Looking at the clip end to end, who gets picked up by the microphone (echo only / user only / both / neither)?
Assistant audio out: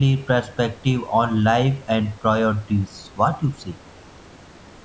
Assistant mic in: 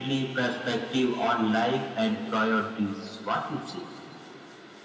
echo only